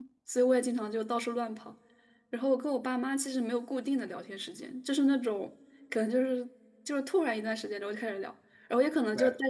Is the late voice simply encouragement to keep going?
Yes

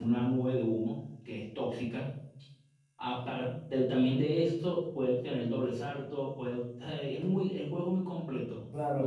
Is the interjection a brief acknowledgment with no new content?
No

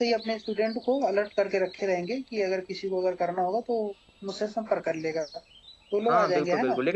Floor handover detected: Yes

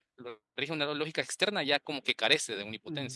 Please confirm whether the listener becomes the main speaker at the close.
Yes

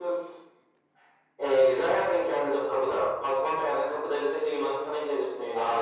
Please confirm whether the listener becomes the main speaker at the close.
Yes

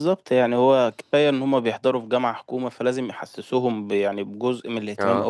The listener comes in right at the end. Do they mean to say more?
No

